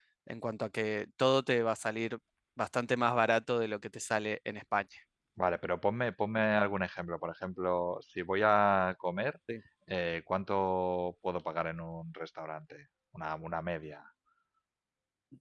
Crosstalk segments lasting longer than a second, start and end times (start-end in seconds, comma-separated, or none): none